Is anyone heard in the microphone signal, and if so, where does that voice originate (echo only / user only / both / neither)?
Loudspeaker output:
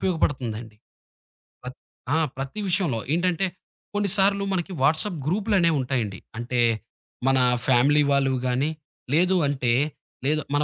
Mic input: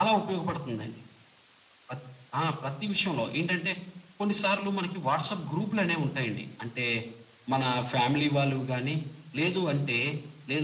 echo only